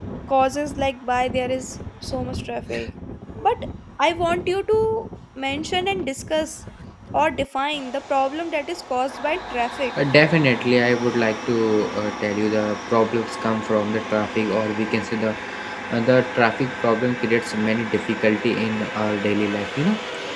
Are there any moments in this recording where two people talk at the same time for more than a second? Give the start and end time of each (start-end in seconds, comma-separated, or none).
none